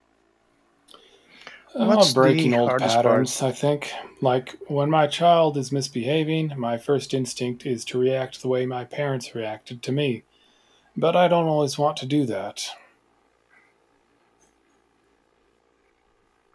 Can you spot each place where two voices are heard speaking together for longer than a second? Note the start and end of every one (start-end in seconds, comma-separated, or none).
1.8-3.3